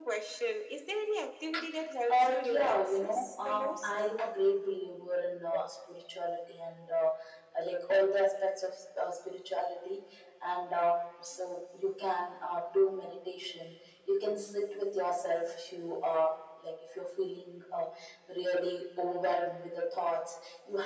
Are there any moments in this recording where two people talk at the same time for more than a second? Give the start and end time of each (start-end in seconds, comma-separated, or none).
2.1-3.9